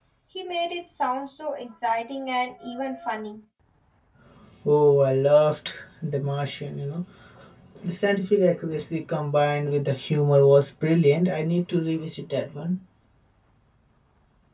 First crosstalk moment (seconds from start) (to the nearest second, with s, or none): none